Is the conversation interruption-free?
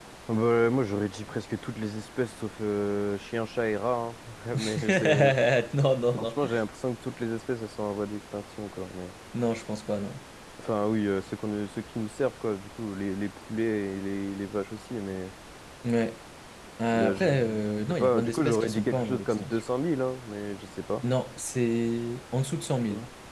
No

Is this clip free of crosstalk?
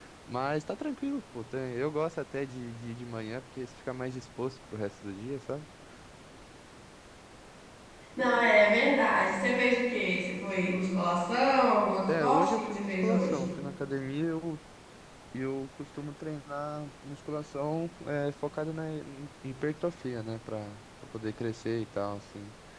No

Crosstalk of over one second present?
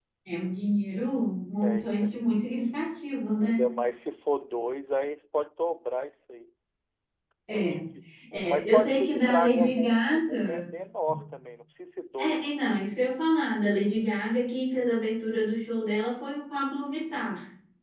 Yes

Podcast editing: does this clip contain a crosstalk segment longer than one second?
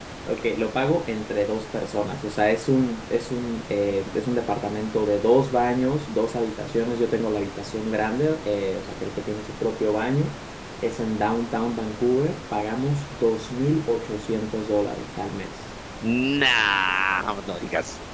No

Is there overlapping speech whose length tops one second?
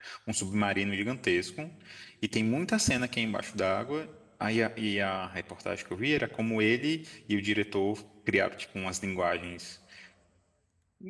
No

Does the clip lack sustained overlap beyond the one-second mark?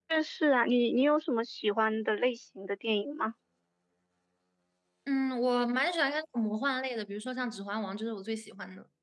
Yes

